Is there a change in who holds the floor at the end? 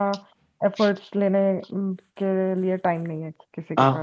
Yes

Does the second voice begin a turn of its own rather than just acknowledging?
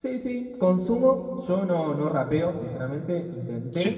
No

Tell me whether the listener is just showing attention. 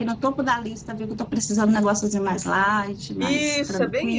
No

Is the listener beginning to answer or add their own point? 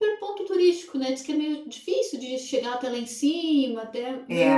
No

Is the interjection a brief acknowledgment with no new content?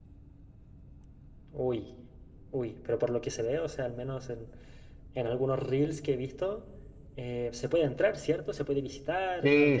No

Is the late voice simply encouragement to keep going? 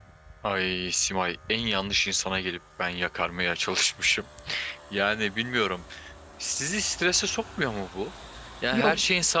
Yes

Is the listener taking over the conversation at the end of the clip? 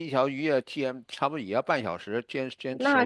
No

